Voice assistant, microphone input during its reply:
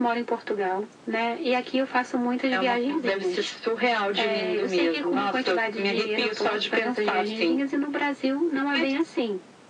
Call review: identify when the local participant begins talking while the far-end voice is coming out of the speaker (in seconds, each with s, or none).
none